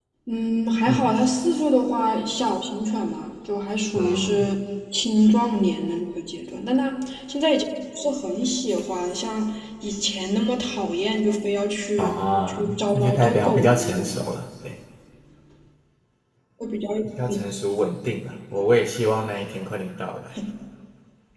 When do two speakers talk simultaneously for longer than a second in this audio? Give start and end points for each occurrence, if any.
12.0-14.2

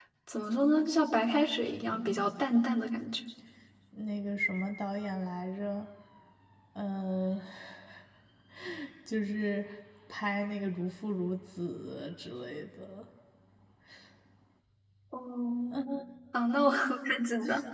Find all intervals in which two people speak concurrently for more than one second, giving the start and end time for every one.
none

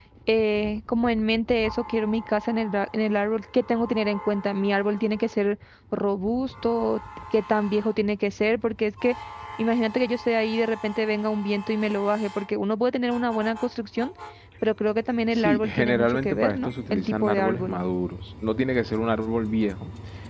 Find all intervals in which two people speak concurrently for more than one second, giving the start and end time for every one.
15.3-17.8

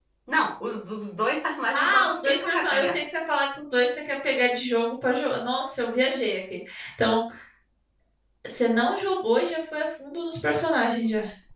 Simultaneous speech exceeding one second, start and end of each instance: 1.7-3.0

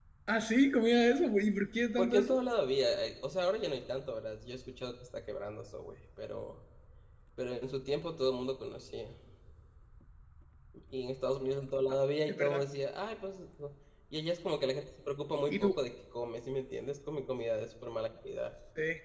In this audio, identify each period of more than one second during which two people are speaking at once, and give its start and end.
none

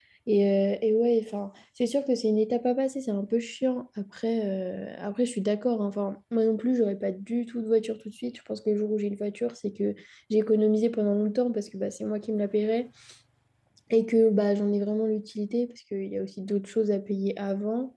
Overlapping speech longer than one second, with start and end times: none

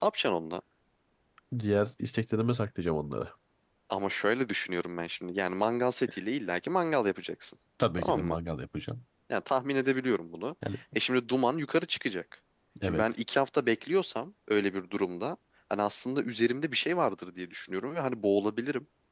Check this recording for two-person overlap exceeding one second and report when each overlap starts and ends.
none

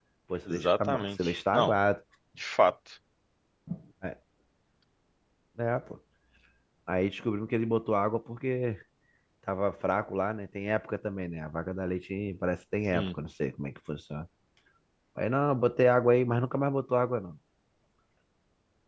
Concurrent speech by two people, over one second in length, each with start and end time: 0.5-1.8

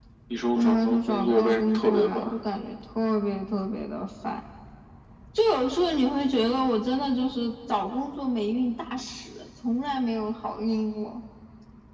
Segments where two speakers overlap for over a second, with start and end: 0.6-2.3

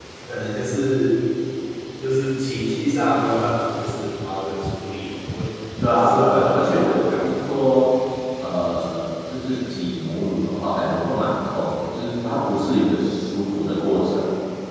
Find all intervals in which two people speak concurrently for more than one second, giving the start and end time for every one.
6.0-7.2

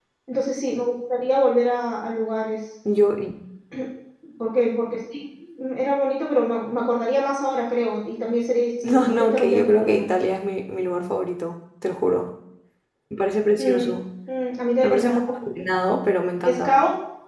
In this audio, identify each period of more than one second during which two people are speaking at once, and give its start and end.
8.9-10.1

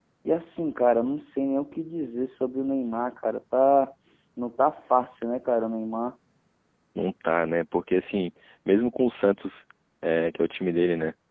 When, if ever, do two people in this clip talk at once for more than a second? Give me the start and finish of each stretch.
none

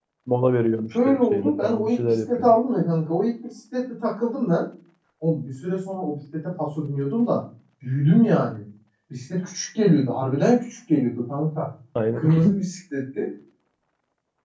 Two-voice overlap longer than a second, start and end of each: 1.1-2.5

